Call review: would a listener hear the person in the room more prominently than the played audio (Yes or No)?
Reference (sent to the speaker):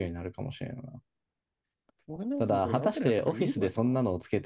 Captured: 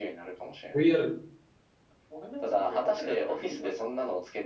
Yes